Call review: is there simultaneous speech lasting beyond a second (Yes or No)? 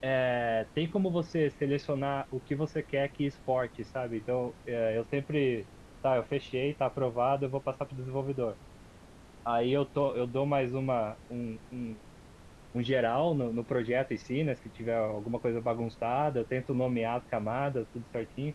No